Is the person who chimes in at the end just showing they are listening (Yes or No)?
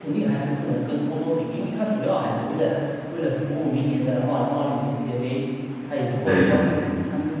Yes